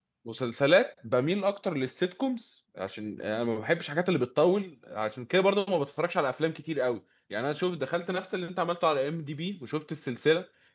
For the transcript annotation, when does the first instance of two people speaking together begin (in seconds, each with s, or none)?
none